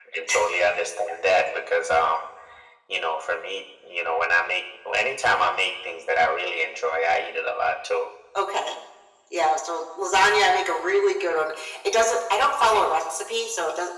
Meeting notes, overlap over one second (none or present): none